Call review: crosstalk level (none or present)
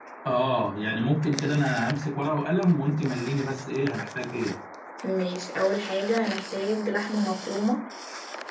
none